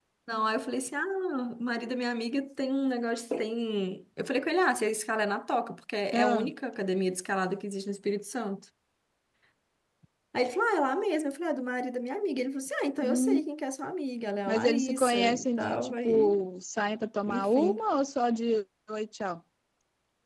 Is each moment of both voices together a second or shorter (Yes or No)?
No